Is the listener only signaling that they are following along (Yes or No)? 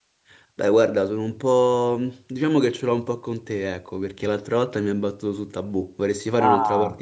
No